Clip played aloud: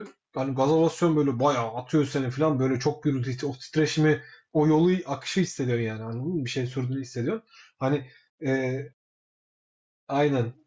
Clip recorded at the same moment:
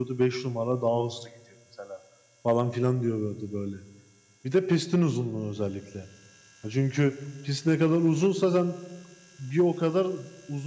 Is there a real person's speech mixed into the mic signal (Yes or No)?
Yes